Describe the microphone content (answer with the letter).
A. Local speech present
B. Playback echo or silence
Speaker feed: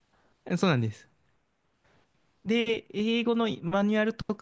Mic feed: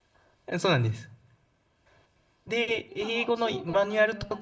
A